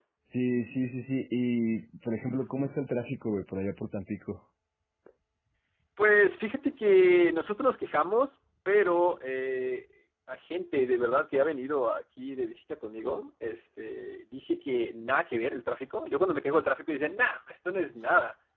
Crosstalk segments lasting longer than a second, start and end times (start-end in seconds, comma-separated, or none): none